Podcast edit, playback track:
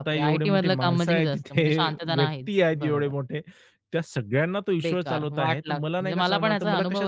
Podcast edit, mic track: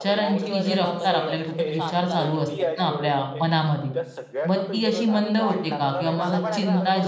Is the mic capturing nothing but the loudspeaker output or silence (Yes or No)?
No